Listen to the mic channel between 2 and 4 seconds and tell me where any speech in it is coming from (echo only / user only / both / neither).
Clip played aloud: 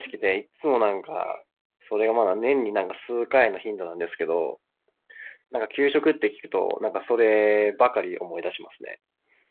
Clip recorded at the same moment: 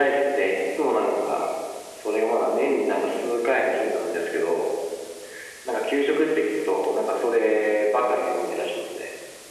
echo only